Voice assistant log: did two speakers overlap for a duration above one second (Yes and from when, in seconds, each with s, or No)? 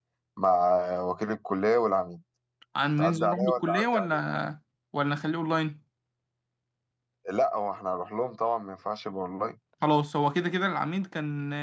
Yes, from 3.0 s